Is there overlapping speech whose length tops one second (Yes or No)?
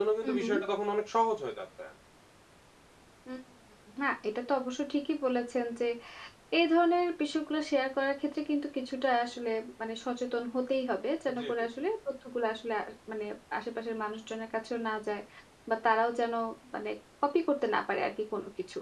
No